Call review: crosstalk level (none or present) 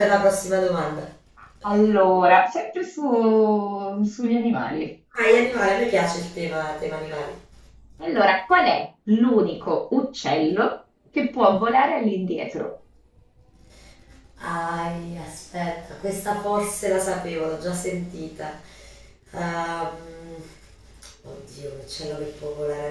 none